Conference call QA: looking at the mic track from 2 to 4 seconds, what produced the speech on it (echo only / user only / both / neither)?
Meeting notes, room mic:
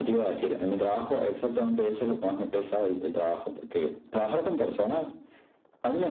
echo only